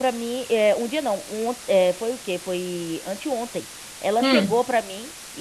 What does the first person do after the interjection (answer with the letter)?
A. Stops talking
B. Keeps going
B